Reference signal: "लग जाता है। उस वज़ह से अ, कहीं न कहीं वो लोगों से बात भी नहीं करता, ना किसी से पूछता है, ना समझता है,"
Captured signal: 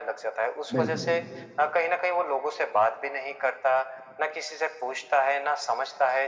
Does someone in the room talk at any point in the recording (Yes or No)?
Yes